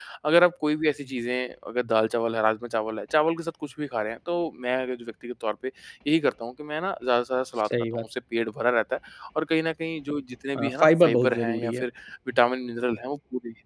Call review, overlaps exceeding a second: present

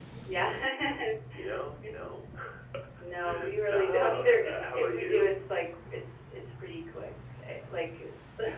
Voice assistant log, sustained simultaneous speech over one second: present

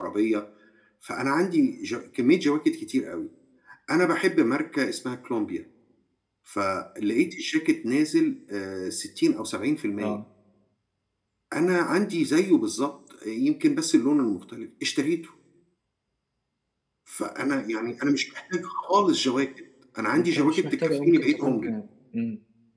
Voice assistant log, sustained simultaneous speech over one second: present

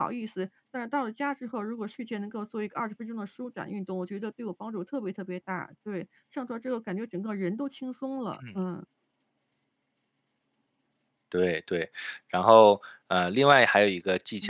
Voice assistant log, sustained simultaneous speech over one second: none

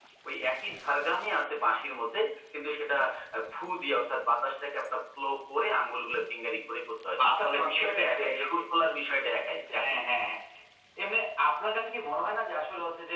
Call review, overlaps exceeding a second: present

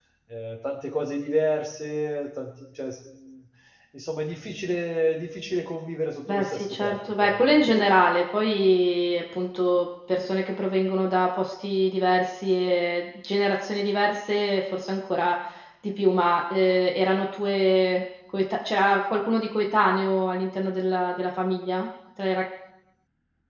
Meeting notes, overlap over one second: present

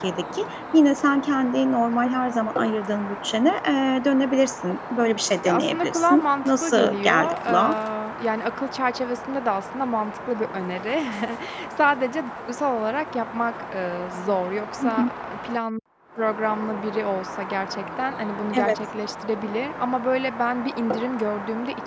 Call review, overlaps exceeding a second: present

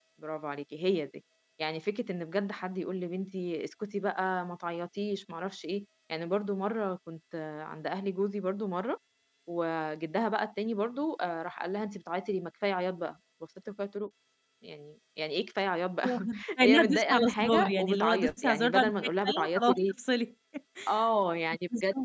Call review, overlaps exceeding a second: present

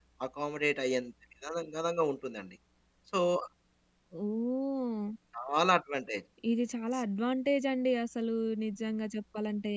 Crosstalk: none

